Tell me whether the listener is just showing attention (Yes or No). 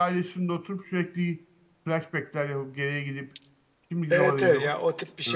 No